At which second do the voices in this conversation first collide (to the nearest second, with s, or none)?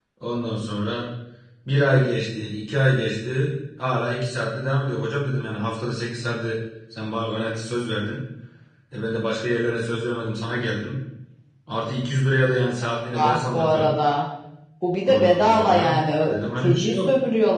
13 s